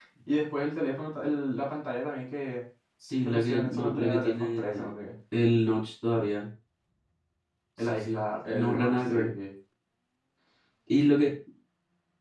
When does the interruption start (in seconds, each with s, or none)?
3.2 s